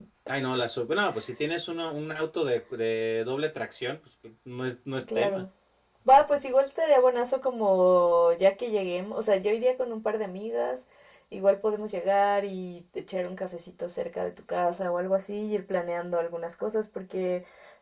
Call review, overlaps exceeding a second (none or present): none